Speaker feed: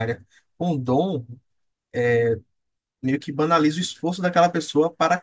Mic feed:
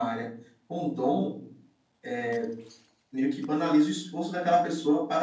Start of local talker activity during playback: none

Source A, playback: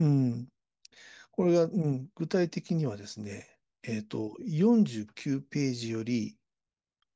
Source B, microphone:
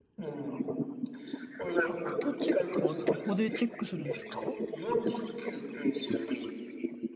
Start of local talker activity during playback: 2 s

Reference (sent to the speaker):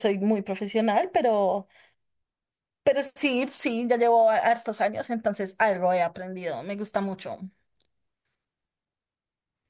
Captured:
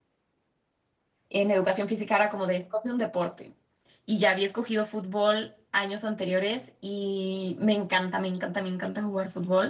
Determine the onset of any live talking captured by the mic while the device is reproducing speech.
1 s

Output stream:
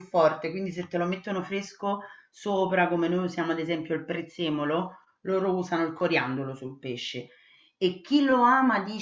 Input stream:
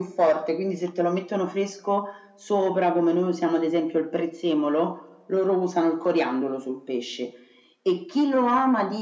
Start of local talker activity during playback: none

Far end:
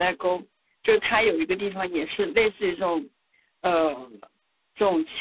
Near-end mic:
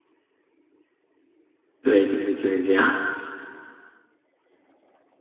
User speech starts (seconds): 2 s

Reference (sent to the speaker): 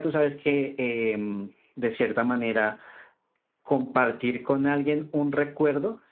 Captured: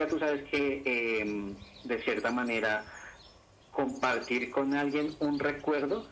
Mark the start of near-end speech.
none

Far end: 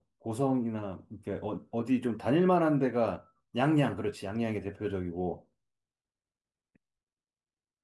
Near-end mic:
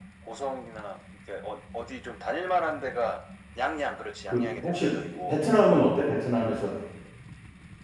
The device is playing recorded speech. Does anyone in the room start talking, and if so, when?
4 s

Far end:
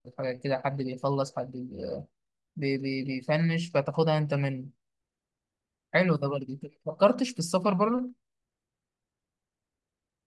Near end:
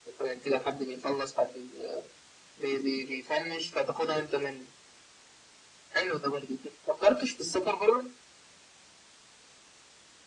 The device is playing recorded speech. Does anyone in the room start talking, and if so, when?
none

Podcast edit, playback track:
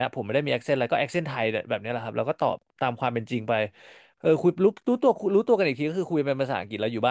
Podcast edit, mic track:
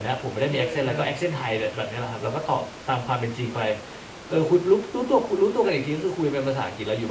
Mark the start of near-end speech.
0 s

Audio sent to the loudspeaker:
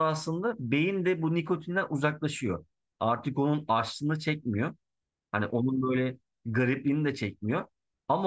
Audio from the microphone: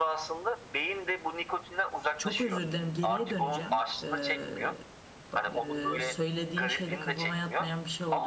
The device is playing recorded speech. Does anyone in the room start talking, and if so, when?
2 s

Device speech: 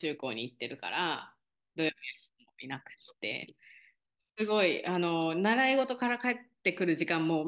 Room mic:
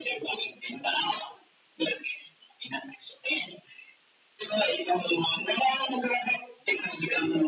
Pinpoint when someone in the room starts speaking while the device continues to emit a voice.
none

